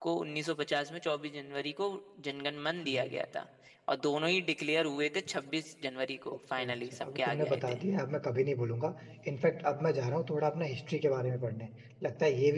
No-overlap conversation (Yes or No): No